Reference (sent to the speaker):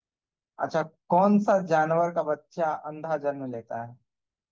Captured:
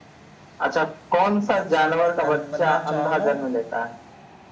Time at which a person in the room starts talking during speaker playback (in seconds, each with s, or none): 2.2 s